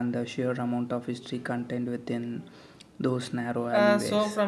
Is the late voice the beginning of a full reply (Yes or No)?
Yes